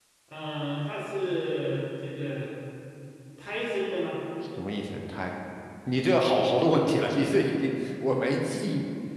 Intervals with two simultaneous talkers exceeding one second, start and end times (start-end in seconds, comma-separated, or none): none